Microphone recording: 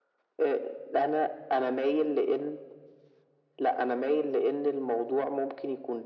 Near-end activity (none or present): none